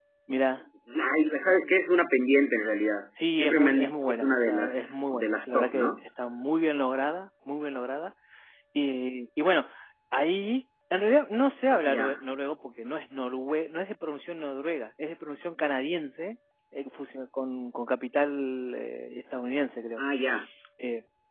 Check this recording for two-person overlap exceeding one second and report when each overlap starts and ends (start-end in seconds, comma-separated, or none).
3.3-5.9